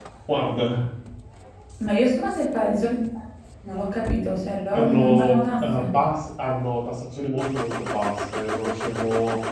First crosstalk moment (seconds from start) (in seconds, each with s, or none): 4.7 s